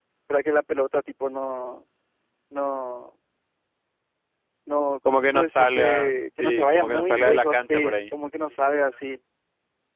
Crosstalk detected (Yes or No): Yes